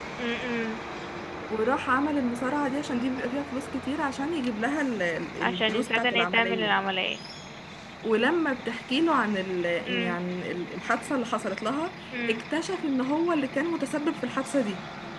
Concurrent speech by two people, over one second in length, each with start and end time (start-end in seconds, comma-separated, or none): 5.4-6.8